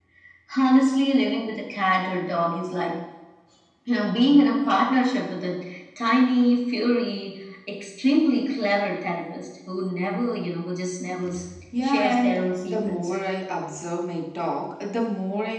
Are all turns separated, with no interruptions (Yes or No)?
No